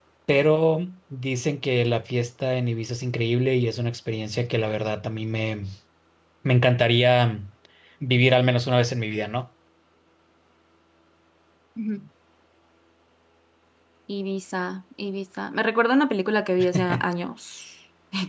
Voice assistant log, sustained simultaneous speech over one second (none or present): none